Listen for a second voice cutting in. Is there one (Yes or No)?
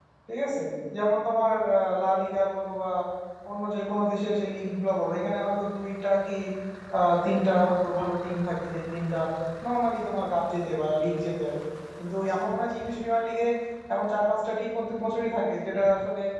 No